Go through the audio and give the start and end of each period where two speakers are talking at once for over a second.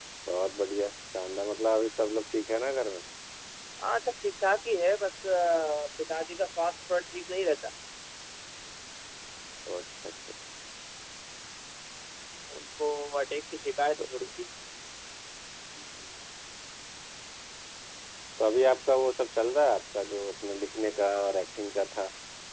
none

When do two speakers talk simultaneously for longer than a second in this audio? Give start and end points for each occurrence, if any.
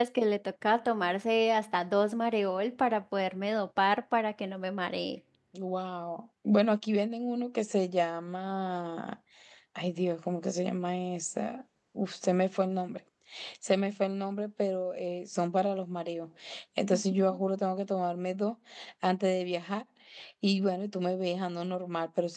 none

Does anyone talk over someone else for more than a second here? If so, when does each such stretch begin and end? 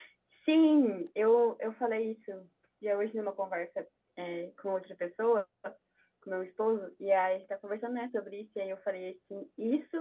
none

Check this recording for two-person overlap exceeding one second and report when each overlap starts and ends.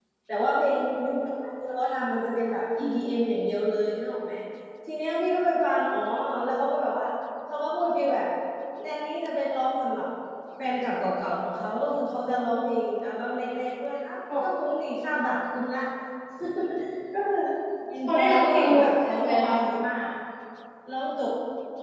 18.1-19.5

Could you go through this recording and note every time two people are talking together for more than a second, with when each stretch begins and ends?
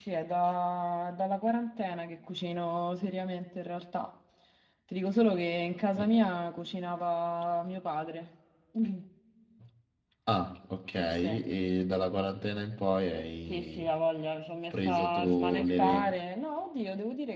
14.7-16.1

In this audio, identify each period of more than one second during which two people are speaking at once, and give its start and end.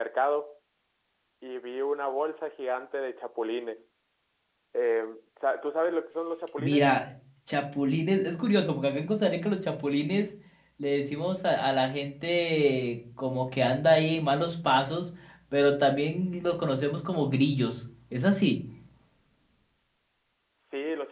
none

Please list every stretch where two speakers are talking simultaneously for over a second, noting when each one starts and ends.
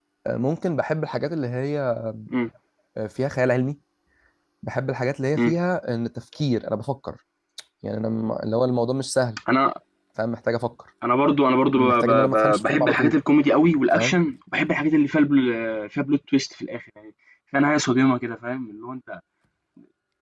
11.8-13.2

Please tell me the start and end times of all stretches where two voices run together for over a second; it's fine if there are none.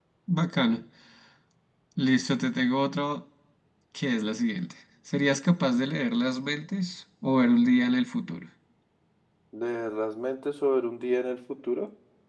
none

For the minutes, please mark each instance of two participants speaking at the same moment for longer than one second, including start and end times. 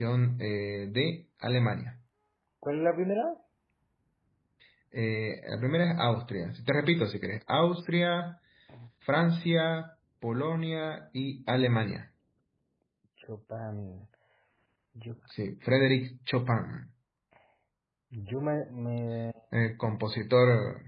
none

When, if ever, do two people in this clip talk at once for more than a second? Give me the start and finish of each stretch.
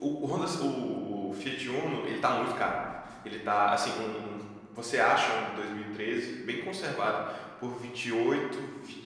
none

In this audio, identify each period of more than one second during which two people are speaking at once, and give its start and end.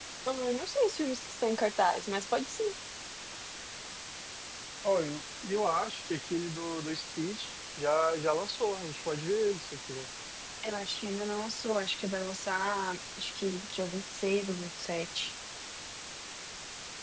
none

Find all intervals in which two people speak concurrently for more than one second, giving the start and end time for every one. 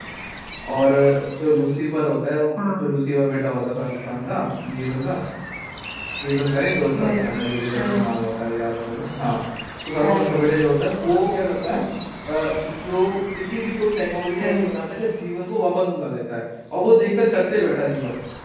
none

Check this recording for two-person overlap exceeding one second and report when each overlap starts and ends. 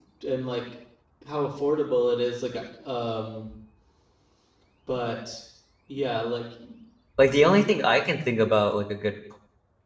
none

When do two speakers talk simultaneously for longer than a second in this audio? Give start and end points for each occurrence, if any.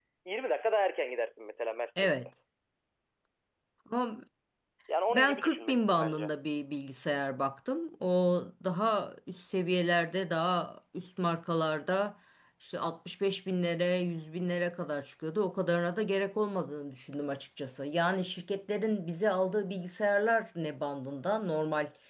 5.1-6.3

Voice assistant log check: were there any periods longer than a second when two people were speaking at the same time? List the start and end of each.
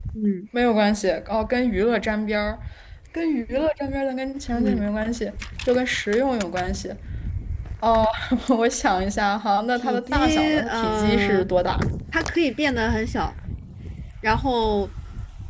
9.8-11.5

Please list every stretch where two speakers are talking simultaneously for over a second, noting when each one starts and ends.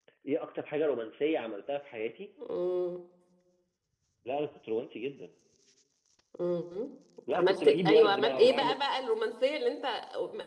7.3-8.8

